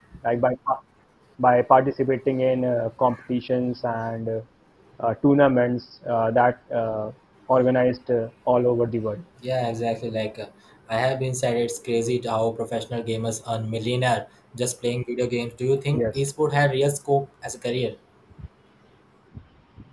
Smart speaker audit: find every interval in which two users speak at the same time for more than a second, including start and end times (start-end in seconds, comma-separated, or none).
none